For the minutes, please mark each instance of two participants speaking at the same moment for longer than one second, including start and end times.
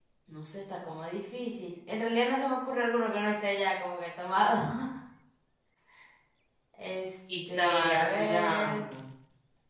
7.5-8.8

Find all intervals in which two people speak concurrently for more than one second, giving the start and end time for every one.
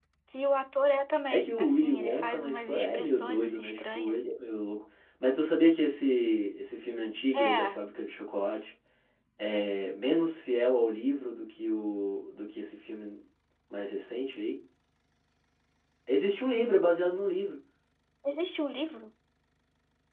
1.3-4.2

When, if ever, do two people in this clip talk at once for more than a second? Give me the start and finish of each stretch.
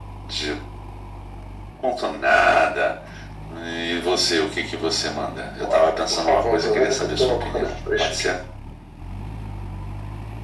5.6-8.3

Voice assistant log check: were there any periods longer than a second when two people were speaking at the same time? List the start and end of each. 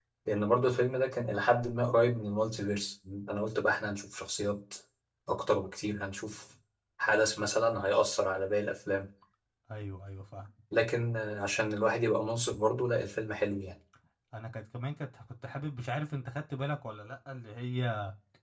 none

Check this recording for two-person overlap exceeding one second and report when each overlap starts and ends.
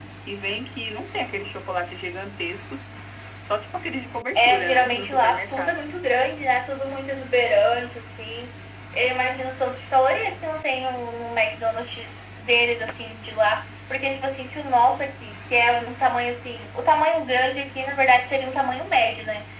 4.4-5.9

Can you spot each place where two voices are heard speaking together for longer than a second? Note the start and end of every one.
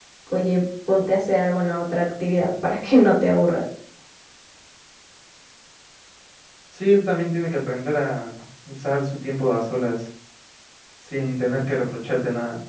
none

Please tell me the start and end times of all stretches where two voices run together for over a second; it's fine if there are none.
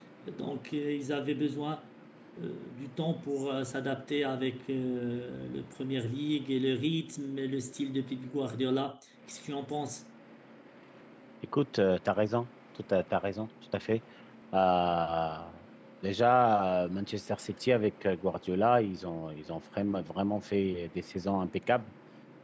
none

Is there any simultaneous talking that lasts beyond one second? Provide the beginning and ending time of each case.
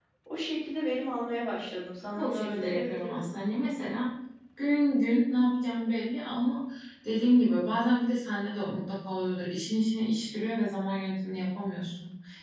2.1-3.8

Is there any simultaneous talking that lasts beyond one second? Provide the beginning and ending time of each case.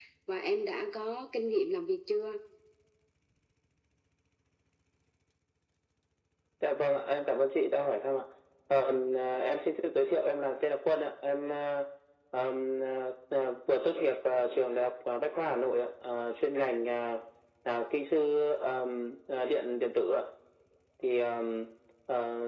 none

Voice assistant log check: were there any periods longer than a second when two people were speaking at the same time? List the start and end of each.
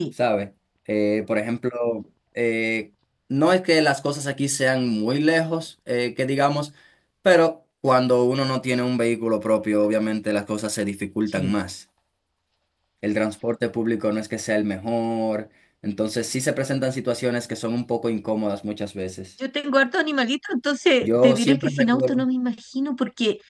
21.0-22.2

